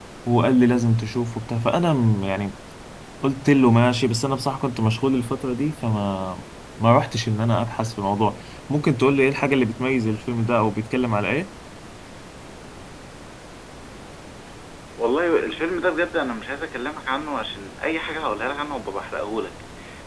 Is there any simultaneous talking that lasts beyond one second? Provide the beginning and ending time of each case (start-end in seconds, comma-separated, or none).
none